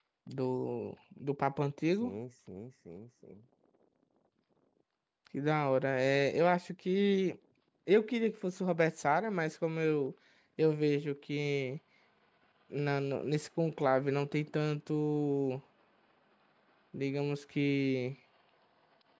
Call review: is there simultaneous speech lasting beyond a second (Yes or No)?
No